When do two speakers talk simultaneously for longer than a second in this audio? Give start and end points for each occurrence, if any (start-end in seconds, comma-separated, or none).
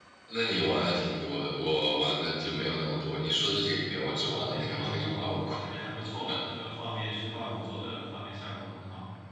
4.2-5.6